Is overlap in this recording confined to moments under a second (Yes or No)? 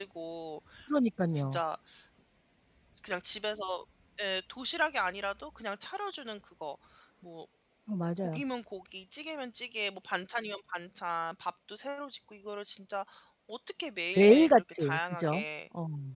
No